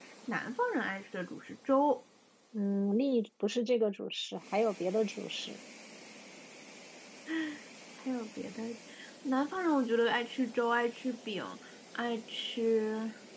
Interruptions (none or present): none